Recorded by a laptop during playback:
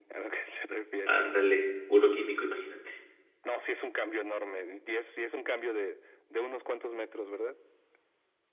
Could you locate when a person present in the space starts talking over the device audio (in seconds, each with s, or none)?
1.0 s